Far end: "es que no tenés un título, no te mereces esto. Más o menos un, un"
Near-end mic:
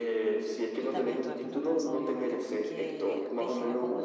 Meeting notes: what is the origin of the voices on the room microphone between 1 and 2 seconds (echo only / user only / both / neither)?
both